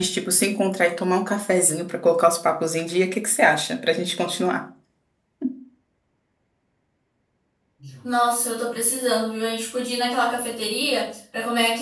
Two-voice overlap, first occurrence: none

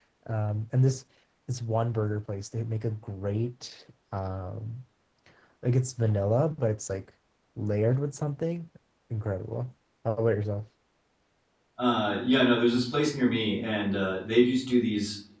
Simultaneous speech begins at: none

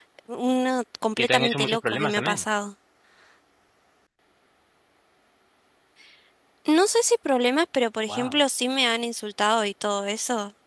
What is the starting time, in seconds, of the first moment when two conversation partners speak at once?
1 s

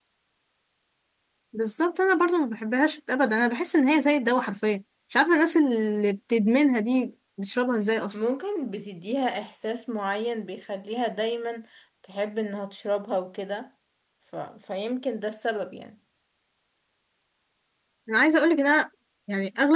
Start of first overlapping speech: none

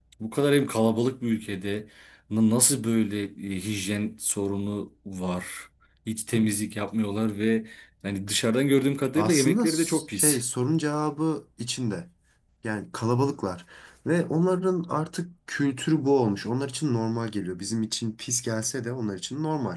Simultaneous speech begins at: 9 s

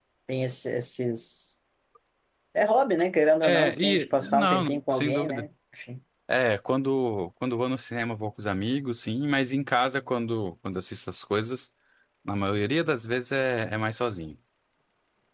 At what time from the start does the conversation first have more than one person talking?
3 s

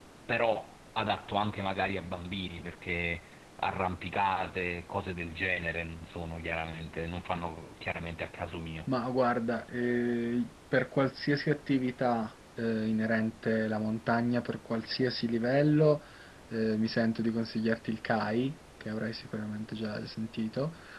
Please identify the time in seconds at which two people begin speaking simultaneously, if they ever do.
none

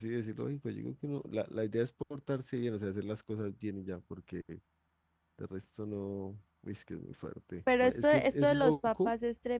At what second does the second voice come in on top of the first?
8 s

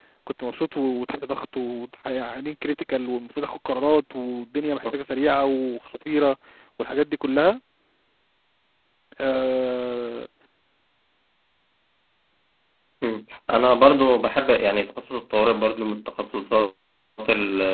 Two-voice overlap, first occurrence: none

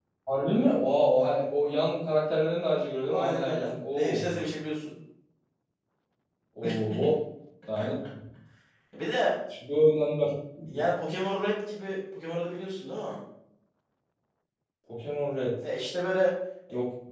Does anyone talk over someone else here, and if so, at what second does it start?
3 s

